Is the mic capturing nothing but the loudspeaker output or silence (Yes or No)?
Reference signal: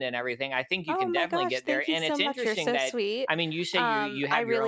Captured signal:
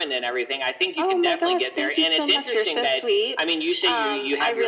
Yes